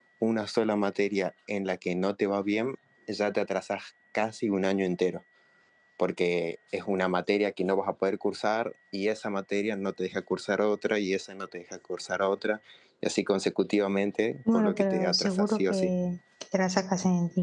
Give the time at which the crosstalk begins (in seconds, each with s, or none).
14.5 s